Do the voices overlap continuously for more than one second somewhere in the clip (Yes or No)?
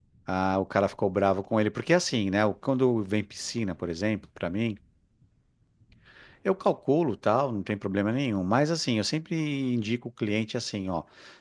No